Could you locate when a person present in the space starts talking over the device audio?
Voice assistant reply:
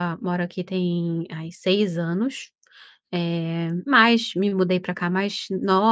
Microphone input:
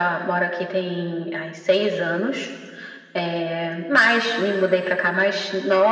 none

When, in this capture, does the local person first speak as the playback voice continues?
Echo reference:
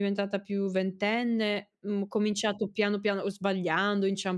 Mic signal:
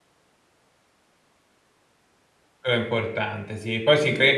3 s

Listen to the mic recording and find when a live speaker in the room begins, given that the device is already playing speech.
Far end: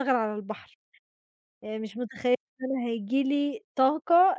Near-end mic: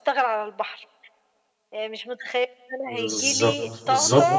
3 s

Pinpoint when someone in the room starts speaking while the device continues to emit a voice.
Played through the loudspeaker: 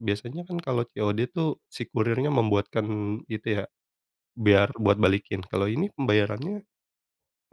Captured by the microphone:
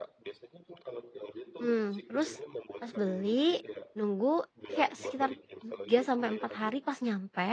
2 s

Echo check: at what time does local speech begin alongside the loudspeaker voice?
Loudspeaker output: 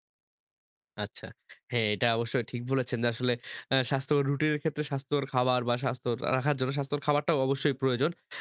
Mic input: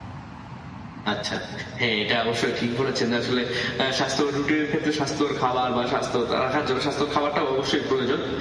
none

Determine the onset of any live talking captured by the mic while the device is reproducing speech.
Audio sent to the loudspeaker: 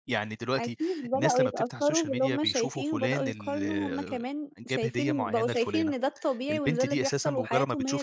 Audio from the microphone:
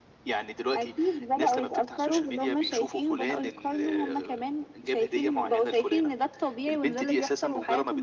none

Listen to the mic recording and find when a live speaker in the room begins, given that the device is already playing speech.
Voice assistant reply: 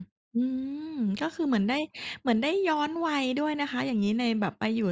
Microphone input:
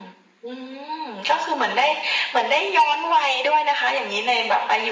none

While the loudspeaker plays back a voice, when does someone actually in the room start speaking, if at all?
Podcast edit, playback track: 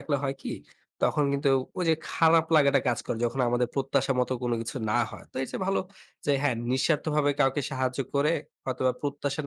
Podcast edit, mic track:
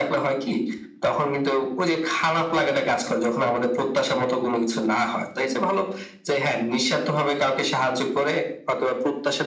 none

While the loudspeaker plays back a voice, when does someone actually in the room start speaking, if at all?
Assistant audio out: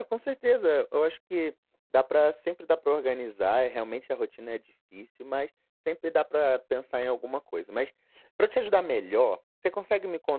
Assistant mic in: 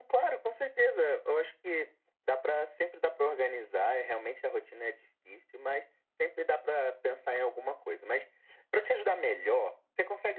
none

